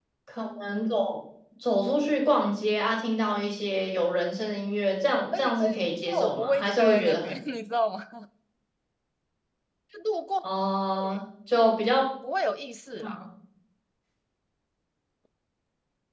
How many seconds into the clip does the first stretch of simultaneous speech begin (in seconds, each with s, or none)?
5.3 s